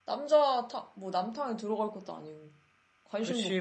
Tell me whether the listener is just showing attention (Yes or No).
No